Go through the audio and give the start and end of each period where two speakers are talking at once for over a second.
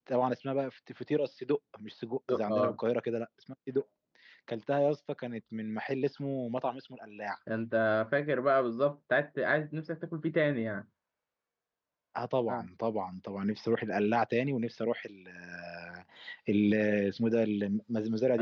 none

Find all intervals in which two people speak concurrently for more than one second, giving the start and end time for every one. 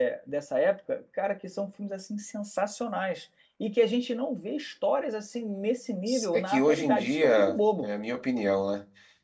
6.3-7.9

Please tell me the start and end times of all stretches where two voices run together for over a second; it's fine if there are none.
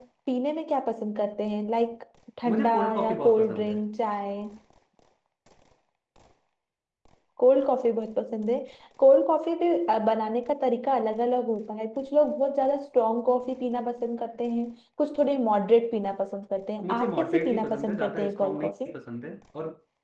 2.5-3.8, 16.8-18.9

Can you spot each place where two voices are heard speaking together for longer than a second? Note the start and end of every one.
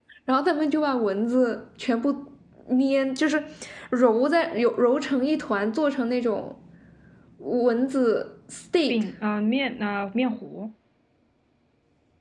none

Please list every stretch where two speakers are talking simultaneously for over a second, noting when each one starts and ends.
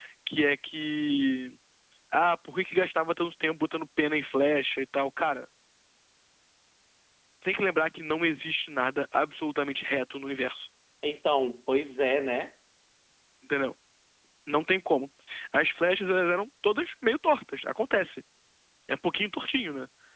none

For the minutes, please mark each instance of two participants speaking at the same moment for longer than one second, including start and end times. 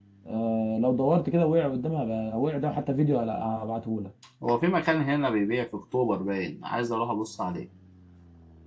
none

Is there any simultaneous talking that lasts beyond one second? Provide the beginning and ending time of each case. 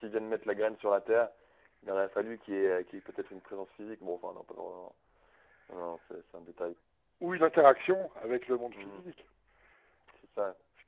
none

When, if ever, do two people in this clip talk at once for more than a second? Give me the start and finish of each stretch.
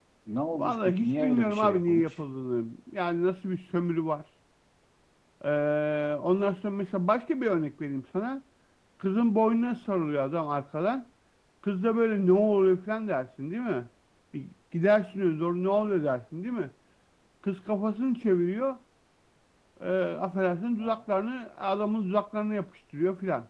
0.5-2.0

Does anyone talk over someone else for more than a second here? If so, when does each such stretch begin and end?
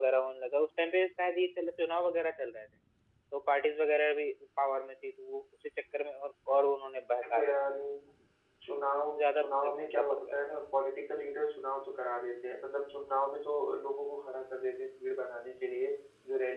9.2-10.4

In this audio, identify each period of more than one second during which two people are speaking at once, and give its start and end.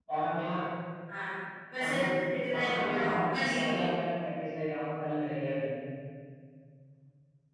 2.6-3.9

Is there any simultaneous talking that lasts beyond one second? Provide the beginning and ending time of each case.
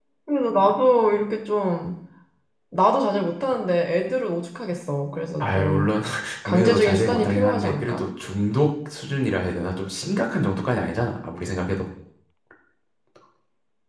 6.5-8.0

